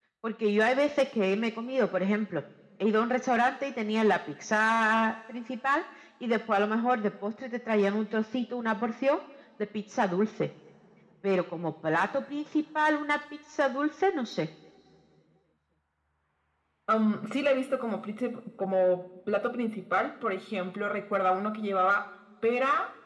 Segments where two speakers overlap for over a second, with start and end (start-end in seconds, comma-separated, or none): none